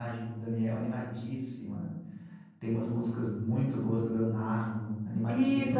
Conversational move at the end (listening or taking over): taking over